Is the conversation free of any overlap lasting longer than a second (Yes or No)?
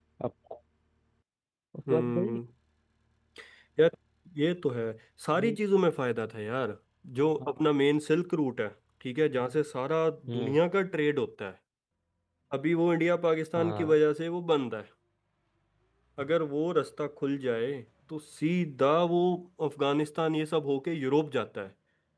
Yes